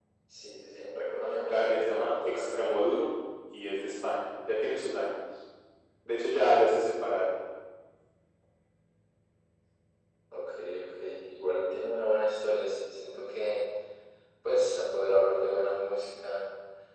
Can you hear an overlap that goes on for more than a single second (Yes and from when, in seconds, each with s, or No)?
Yes, from 1.5 s